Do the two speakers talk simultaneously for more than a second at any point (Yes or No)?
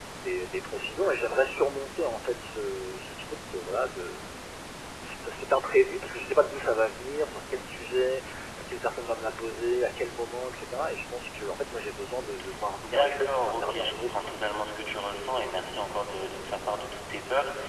Yes